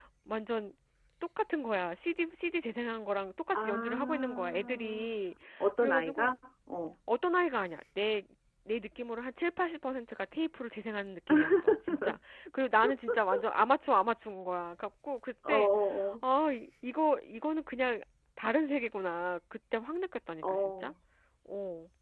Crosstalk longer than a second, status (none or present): present